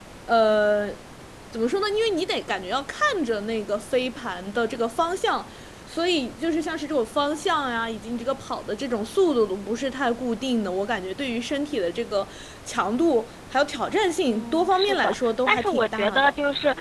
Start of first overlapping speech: 14.3 s

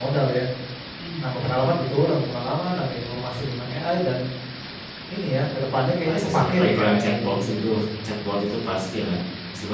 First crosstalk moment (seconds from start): 6.0 s

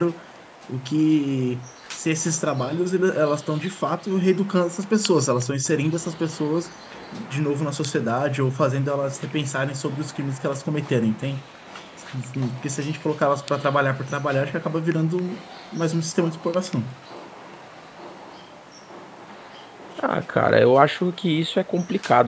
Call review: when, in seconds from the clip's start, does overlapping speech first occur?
none

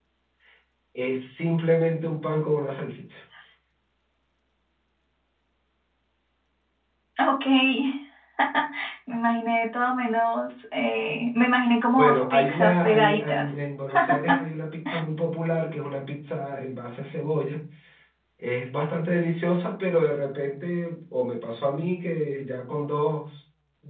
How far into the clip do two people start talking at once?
12.0 s

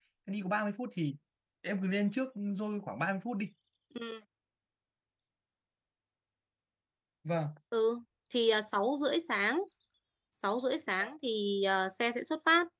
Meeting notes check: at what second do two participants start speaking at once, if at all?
none

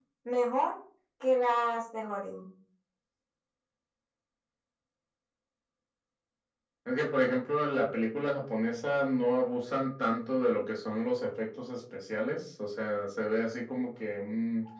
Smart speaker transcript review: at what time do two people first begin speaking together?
none

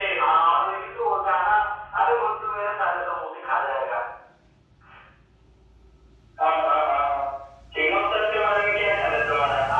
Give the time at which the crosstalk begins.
none

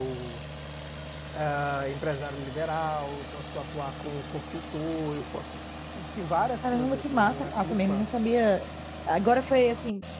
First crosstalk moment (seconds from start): 6.6 s

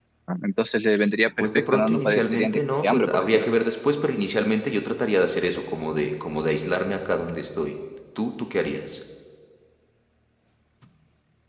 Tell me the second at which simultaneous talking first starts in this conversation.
1.4 s

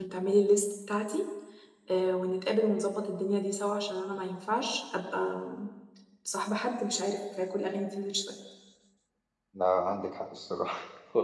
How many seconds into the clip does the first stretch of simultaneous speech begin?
none

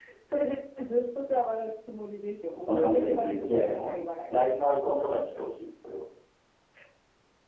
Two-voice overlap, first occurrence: 2.6 s

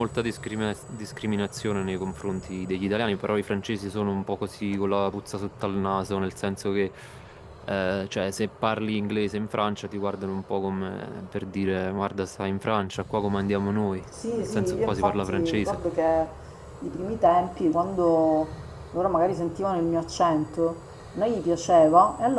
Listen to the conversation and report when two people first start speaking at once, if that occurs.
14.1 s

